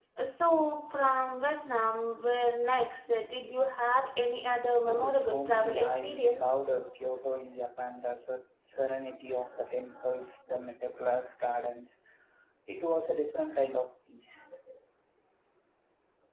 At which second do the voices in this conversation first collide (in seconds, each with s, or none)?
4.9 s